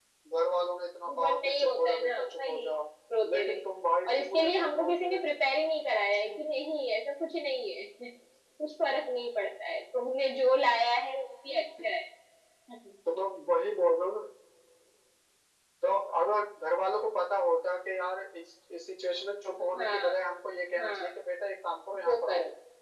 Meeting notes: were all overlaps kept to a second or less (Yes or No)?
No